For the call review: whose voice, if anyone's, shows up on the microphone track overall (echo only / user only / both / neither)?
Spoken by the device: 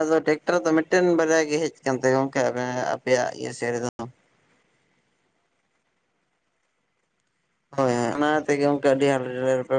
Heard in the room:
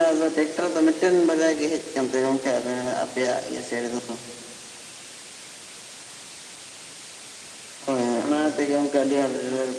echo only